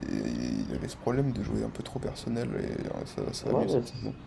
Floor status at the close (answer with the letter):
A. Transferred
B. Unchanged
A